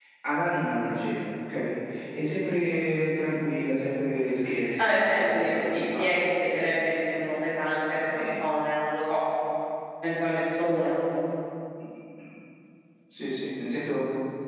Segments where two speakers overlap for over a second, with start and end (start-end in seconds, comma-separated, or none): 4.8-6.9